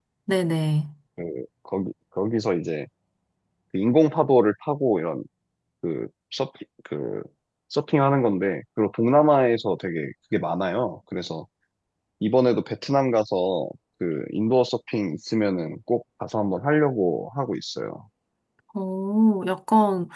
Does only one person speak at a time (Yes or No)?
Yes